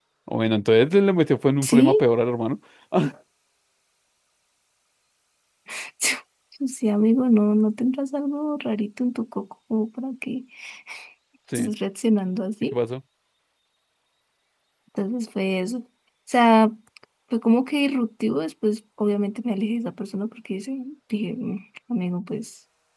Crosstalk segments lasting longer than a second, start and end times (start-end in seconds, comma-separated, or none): none